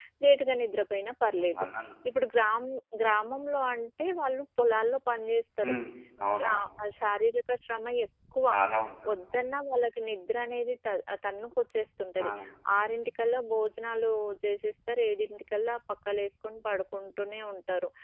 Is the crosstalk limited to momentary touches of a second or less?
Yes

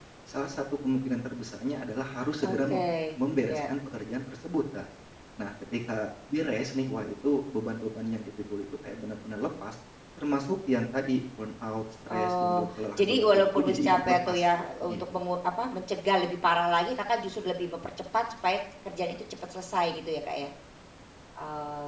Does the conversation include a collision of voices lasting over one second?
Yes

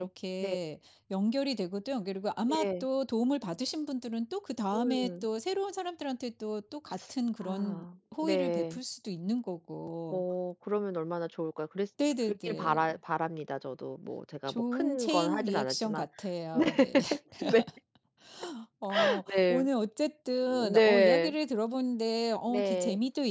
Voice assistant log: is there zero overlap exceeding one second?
No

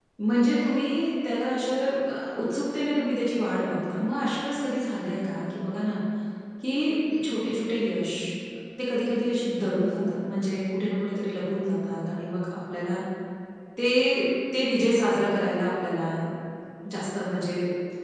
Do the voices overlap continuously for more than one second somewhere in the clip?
No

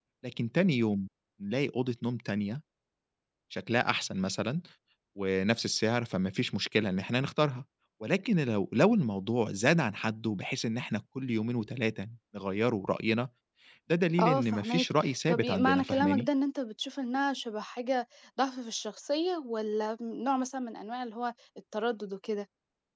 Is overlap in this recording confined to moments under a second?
No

